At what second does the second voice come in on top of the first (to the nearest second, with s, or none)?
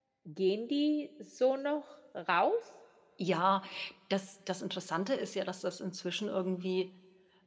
none